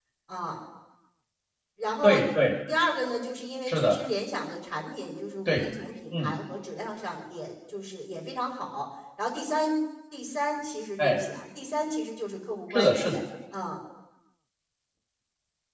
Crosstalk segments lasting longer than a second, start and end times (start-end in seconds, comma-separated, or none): none